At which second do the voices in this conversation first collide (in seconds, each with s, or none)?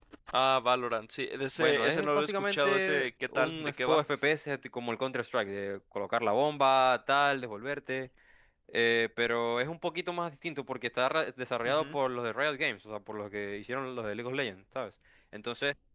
1.6 s